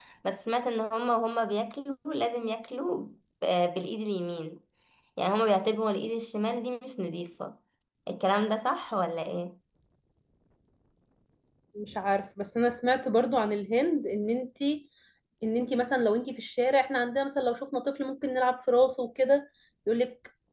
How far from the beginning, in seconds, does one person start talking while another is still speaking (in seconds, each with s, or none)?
none